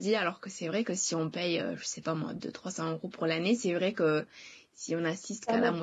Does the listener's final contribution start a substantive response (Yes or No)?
Yes